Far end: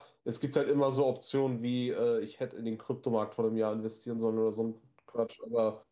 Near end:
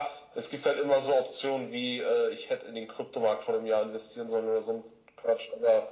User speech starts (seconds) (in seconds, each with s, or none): none